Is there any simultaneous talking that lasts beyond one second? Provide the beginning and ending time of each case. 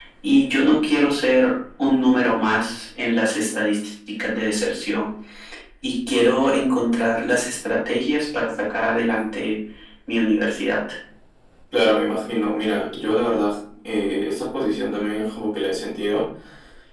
none

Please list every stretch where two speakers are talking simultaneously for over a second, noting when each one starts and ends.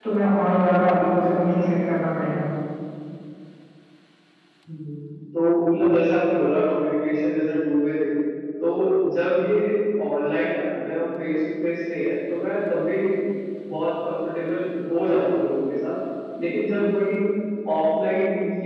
none

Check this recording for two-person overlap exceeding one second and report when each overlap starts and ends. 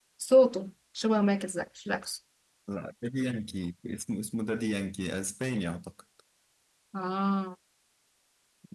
none

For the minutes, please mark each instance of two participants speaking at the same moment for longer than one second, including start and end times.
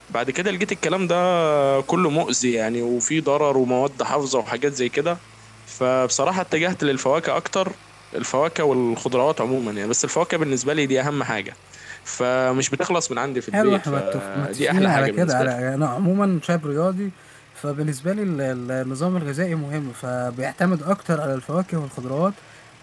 13.5-15.5

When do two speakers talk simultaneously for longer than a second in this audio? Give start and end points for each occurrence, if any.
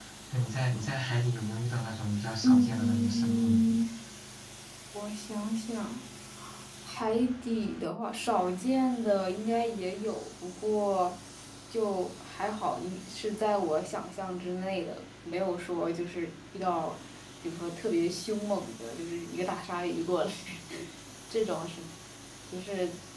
2.4-3.7

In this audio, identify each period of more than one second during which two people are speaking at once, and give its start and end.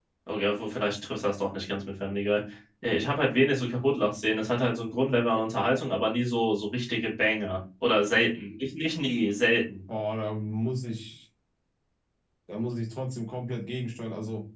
none

